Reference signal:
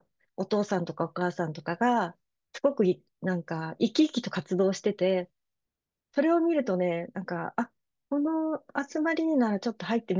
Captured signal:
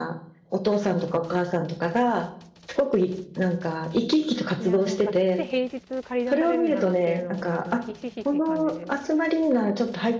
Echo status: present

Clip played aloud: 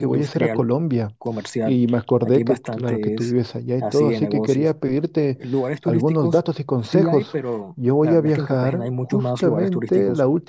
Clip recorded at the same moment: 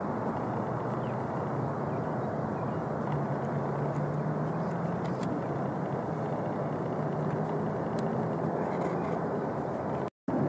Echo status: none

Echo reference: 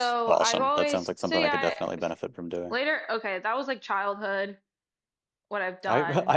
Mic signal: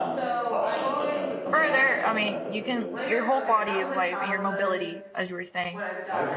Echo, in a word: present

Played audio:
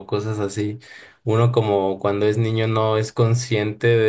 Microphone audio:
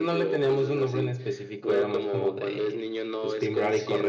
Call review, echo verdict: present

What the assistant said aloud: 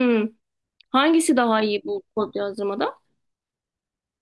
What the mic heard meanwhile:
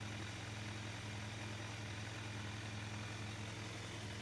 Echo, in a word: none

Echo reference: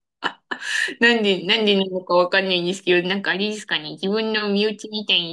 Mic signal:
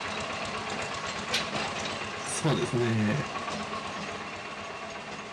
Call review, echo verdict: none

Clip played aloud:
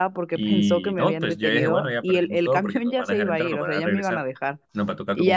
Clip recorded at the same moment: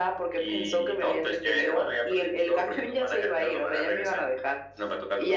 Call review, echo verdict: present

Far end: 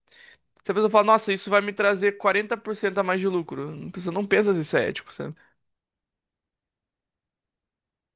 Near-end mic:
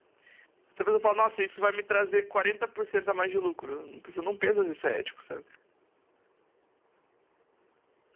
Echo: present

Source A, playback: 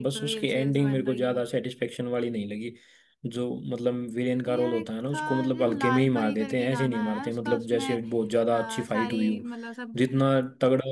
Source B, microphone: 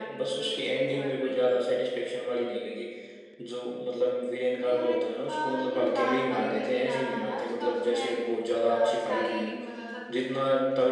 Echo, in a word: present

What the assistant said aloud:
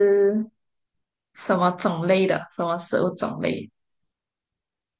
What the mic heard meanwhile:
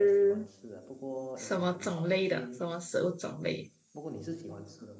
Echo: present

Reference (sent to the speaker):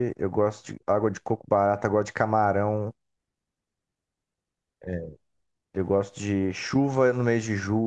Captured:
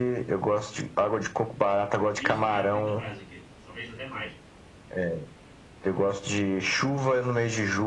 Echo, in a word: present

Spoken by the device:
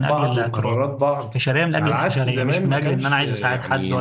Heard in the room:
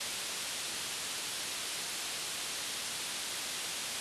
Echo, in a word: none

